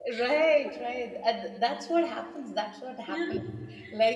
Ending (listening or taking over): listening